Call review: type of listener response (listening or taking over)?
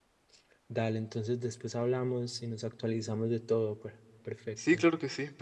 taking over